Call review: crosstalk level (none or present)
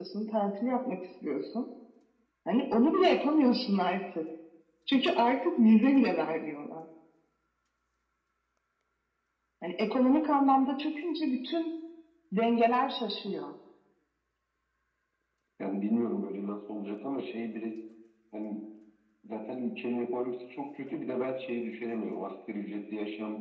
none